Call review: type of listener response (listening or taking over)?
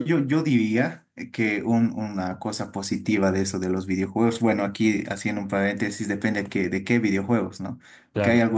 listening